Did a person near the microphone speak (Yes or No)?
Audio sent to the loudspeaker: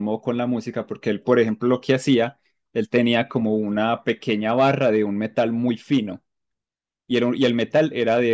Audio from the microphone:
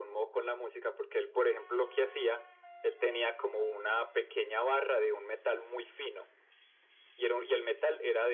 No